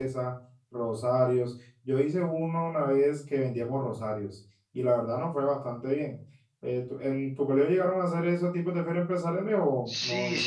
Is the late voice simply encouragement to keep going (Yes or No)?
No